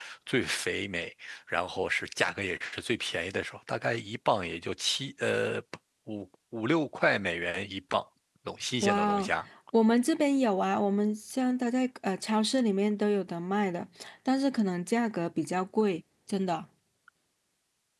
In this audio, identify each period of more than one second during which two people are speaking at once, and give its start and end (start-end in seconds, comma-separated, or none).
none